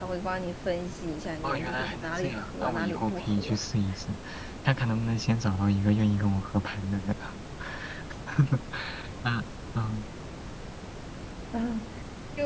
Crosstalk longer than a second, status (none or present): present